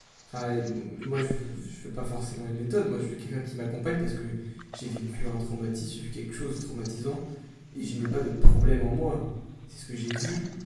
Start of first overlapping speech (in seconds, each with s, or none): none